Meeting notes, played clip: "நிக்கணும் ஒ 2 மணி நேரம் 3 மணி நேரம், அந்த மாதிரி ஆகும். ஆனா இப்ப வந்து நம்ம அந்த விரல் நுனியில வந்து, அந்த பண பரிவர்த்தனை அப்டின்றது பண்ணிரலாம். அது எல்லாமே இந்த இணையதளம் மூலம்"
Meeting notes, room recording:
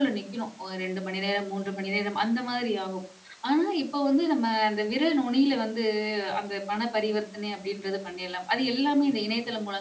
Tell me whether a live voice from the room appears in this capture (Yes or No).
No